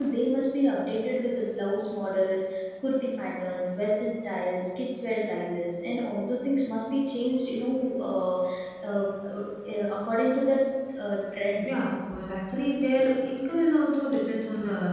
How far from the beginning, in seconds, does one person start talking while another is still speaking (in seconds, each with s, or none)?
none